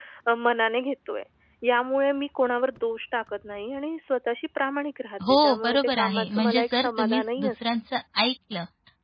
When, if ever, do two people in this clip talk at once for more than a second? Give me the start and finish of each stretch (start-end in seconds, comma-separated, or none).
5.4-7.6